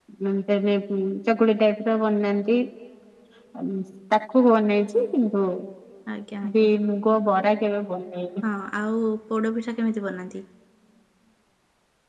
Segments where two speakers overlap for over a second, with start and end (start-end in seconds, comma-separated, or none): none